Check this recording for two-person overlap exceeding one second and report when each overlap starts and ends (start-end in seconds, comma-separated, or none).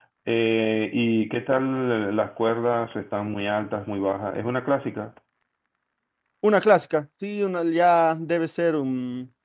none